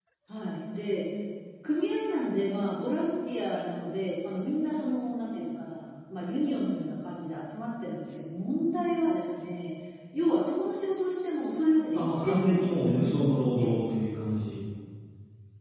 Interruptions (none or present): present